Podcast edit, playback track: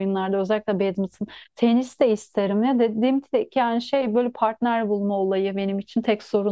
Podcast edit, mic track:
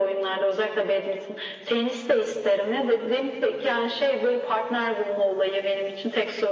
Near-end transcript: none

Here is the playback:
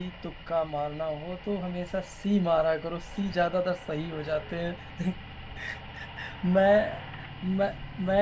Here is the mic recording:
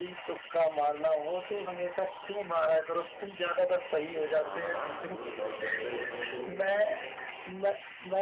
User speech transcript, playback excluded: हाँ हाँ जरूर लॉक कर दो एकदम अच्छे से

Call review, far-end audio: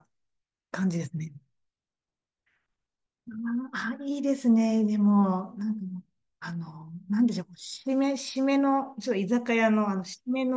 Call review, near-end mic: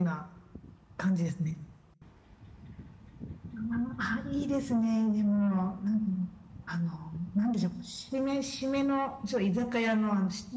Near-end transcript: none

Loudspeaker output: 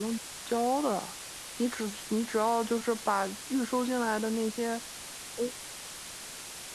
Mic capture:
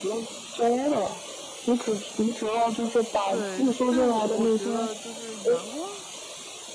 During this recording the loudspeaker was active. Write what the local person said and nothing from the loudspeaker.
对，这这是我我觉得就是员工

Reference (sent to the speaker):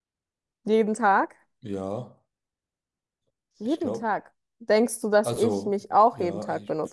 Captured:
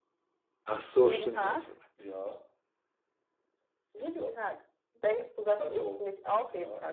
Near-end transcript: Ach so, stimmt, ja, sorry.

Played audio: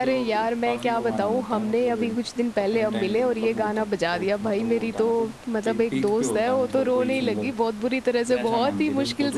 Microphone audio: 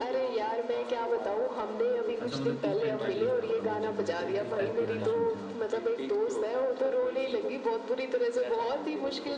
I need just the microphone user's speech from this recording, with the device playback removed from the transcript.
अच्छा मतलब किस टाइप का टेस्ट है आपका म्यूजिक में कि, किस टाइप के गाने सुनते हो आप

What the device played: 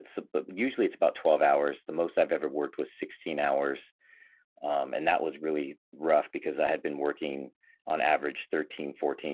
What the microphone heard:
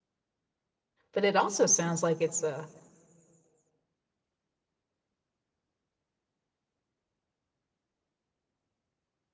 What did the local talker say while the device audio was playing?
But it also sounds like it's a,

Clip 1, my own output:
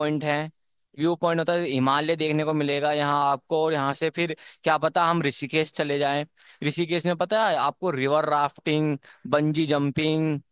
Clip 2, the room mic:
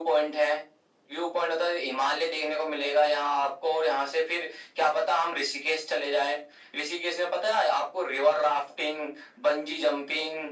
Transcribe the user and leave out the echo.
none

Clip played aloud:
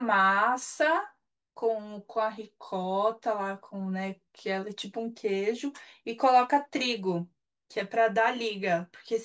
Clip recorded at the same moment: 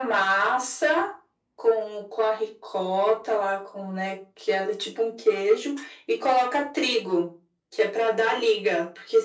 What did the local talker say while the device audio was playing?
none

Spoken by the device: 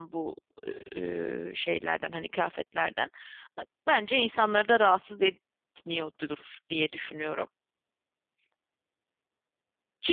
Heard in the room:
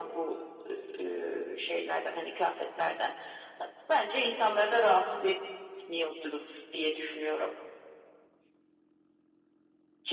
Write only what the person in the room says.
none

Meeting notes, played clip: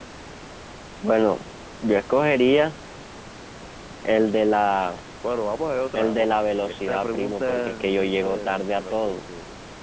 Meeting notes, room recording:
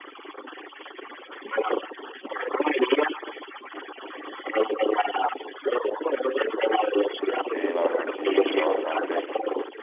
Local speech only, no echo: Sí, la verdad sí, cambiará bastante.

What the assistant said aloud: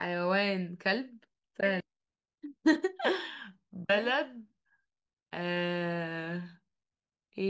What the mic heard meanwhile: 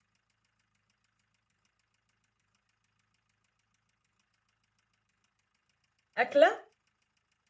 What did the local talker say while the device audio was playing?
اكله

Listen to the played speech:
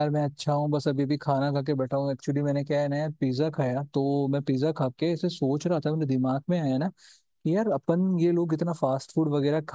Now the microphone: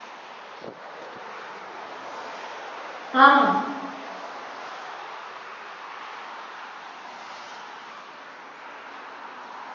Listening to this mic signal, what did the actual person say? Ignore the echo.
हाँ

